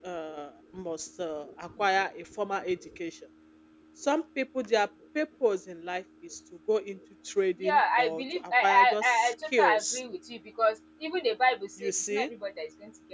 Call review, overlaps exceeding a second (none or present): present